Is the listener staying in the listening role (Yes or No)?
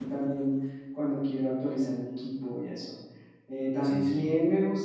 Yes